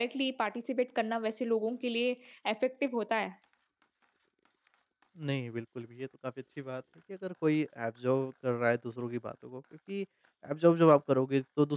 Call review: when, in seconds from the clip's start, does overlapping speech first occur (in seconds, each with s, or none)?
none